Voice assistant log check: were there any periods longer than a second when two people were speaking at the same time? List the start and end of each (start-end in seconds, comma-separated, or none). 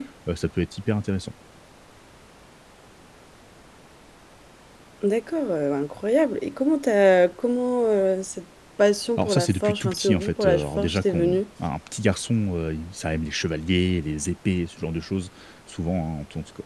9.2-11.4